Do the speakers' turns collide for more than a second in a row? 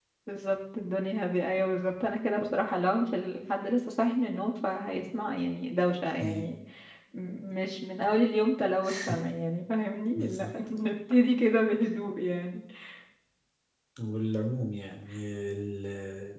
No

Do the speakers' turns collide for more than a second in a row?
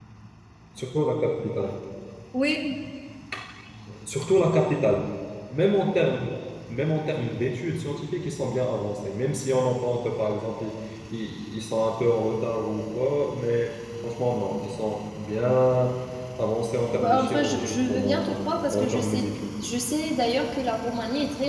Yes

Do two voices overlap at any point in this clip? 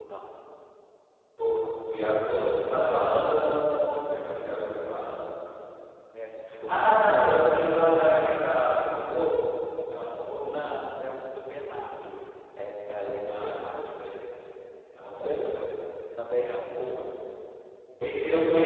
Yes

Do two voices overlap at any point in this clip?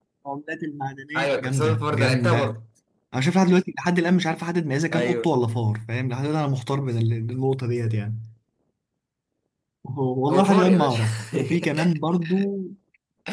Yes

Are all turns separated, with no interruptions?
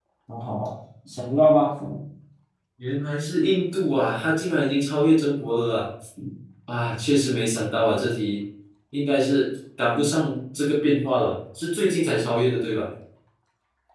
Yes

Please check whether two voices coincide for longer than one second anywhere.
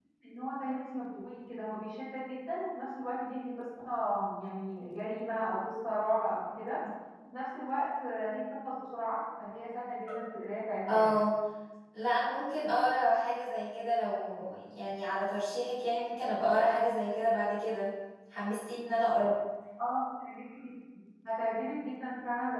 No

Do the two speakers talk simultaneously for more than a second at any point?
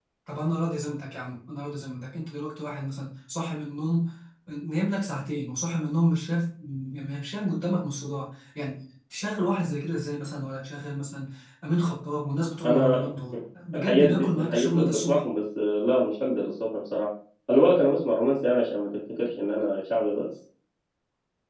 Yes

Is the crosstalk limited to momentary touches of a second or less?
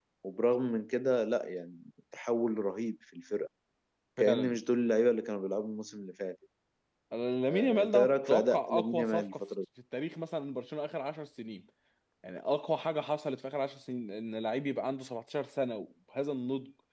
No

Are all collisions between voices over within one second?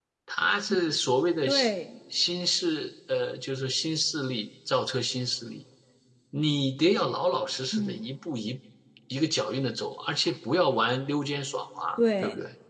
Yes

